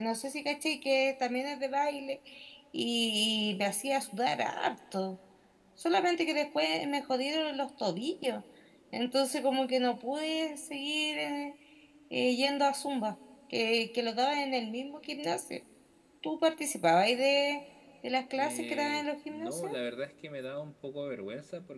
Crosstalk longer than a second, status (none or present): present